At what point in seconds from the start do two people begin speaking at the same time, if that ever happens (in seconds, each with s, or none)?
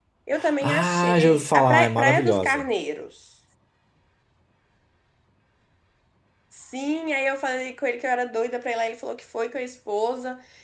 0.6 s